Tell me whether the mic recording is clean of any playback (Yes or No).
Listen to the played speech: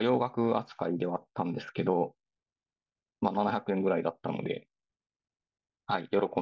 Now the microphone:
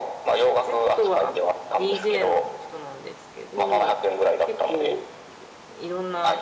No